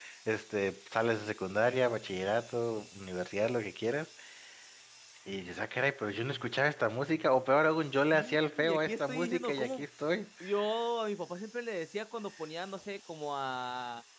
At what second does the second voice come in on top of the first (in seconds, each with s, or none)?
8.1 s